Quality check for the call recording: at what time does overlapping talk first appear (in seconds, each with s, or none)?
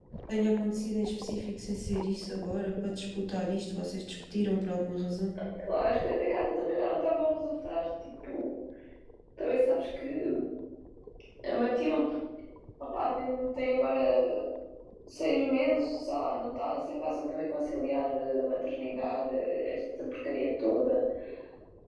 none